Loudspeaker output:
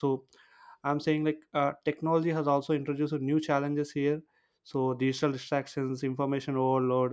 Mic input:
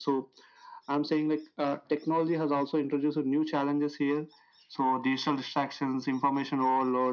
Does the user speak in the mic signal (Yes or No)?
No